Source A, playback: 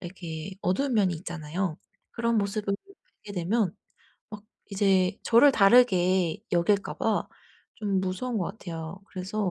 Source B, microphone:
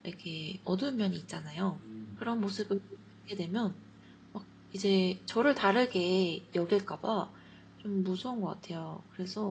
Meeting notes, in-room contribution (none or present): present